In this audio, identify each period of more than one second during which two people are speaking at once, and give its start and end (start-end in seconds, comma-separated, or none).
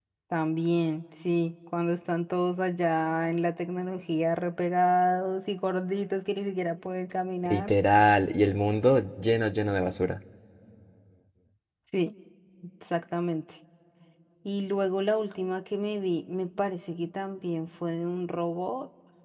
none